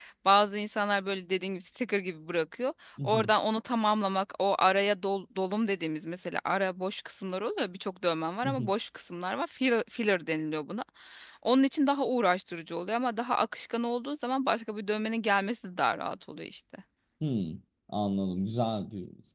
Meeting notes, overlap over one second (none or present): none